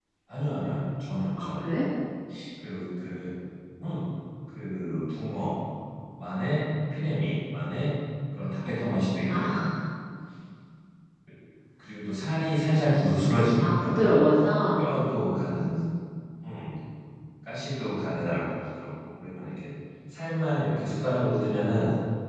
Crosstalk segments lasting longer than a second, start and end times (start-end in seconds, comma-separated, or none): none